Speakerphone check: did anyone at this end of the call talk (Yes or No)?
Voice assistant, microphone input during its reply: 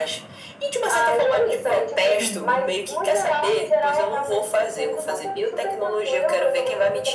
Yes